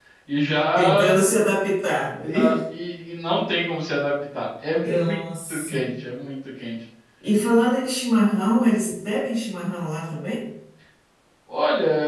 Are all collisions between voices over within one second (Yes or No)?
Yes